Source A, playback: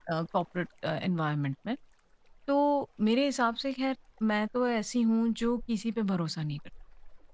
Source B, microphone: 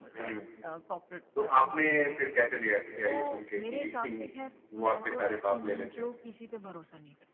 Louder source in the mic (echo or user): user